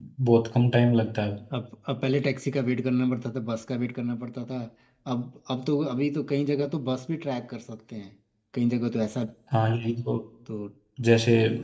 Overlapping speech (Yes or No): No